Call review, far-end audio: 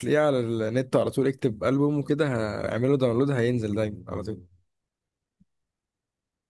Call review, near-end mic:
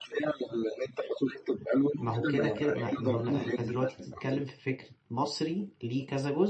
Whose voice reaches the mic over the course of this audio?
both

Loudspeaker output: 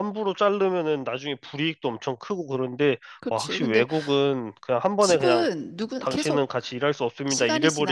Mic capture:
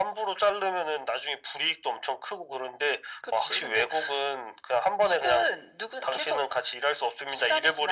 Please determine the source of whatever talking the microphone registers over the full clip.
echo only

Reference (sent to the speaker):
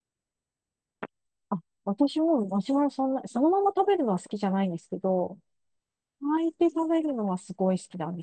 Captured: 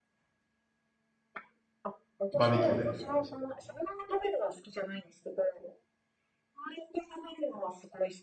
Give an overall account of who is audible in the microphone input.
both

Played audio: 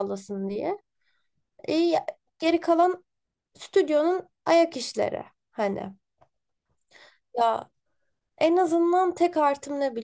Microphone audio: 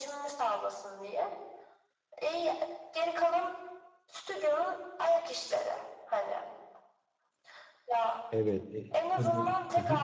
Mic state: both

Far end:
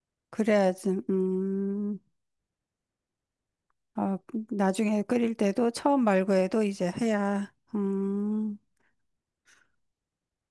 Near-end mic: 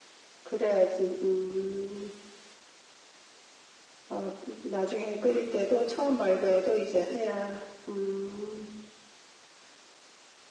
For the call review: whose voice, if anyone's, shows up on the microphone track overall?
echo only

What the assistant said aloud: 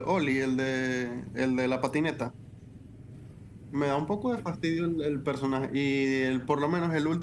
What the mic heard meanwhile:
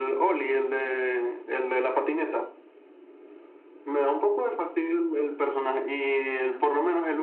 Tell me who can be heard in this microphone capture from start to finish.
echo only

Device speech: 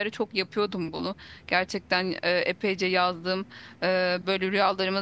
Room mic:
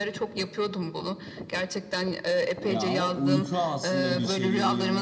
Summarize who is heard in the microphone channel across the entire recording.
both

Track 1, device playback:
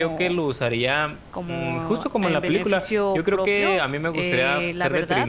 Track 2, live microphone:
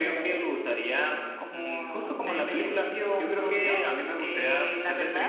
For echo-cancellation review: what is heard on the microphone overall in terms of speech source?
echo only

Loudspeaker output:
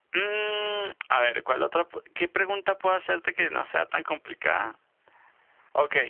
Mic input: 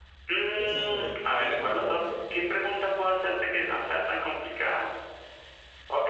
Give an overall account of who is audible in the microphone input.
both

